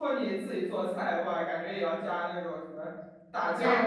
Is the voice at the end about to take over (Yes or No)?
Yes